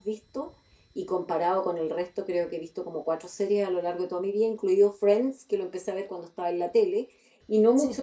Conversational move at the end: listening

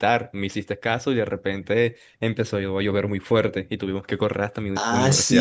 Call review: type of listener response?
taking over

